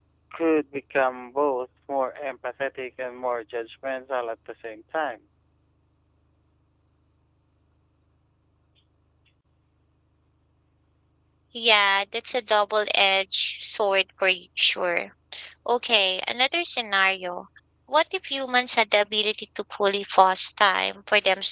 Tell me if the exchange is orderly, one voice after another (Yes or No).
Yes